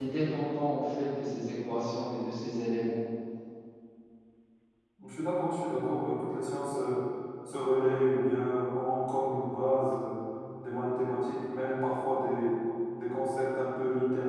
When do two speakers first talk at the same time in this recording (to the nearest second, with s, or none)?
none